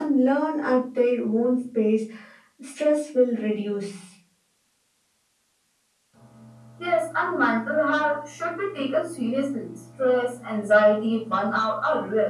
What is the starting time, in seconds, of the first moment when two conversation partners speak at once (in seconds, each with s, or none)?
none